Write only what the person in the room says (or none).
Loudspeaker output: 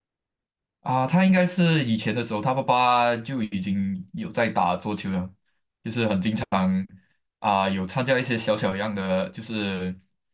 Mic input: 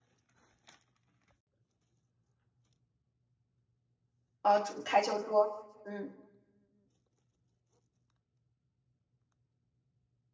哦，桌台球桌，嗯，